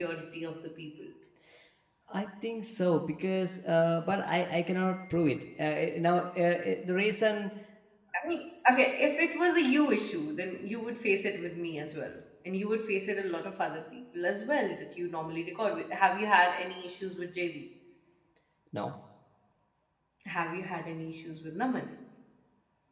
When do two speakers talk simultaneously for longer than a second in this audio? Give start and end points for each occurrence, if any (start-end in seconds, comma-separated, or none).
none